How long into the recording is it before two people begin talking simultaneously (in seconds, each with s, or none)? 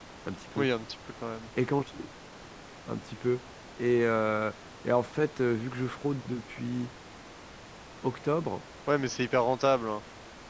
none